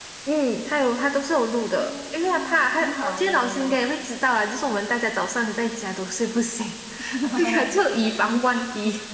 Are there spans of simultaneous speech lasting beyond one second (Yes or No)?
Yes